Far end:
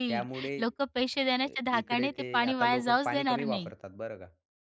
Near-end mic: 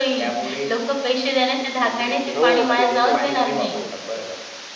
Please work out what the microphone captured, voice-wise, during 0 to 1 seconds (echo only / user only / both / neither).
echo only